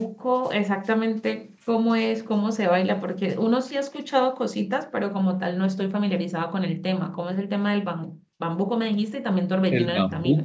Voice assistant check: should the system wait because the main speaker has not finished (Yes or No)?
No